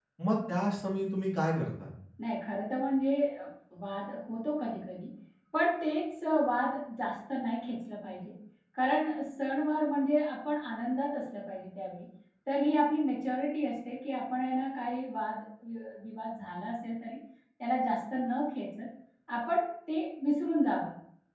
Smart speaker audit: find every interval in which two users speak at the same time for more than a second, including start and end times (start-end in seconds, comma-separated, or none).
none